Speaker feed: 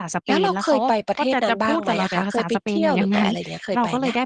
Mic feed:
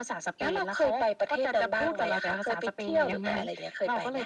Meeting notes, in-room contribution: none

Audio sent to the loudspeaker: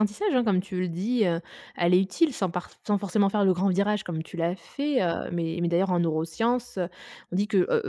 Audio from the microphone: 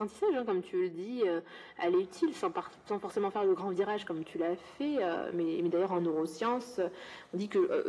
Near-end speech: none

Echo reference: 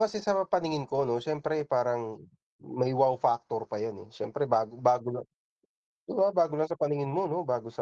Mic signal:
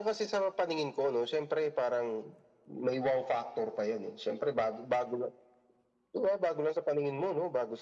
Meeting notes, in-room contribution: none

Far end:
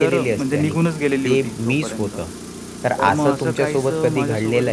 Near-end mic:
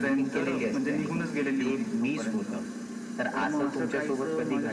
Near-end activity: none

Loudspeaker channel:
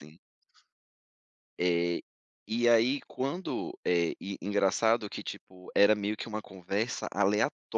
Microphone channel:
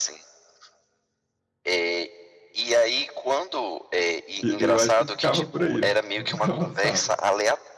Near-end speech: present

